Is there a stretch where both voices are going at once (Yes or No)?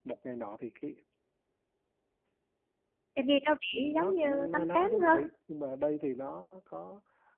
Yes